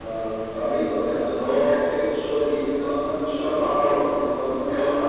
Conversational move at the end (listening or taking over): listening